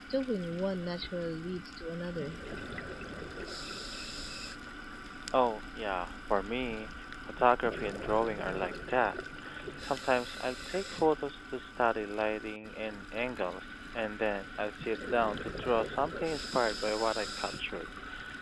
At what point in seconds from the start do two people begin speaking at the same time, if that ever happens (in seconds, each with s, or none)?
none